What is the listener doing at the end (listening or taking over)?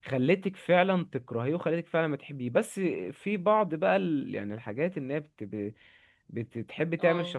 listening